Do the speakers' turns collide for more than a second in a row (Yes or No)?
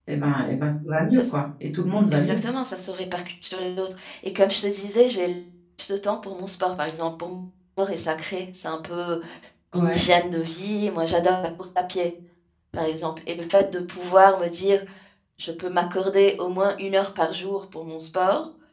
No